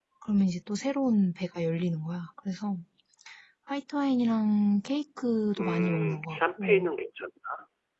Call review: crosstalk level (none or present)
present